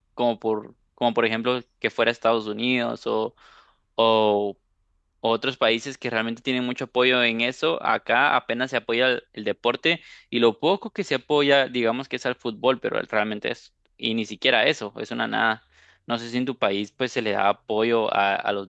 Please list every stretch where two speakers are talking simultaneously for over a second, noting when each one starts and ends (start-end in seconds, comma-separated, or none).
none